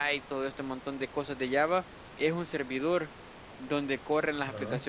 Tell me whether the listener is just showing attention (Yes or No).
Yes